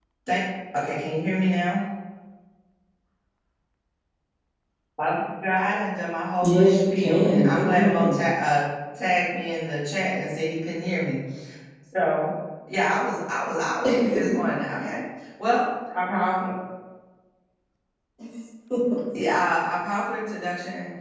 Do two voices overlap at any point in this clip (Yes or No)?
Yes